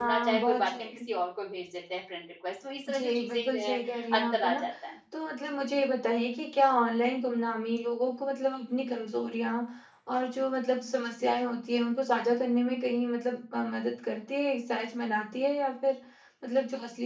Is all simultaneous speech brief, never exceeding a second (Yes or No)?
No